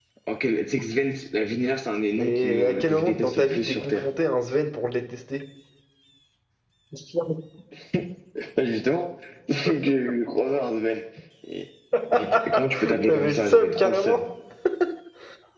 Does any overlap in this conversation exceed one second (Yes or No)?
Yes